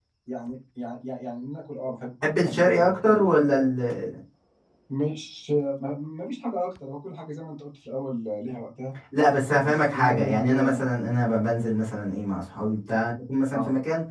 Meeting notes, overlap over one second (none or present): present